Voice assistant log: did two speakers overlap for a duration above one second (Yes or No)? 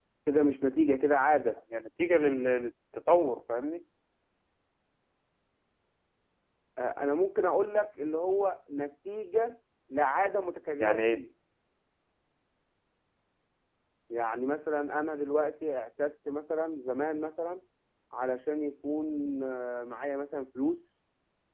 No